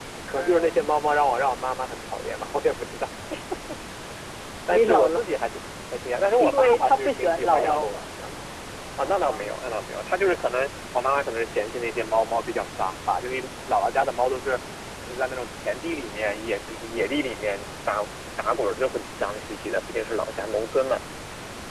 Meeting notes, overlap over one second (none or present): present